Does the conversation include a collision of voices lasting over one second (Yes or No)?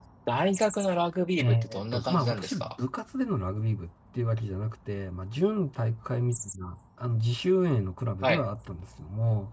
Yes